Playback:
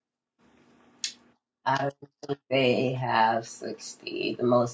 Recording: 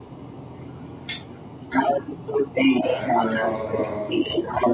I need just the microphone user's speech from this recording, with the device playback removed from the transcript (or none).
All right, no problem, no problem.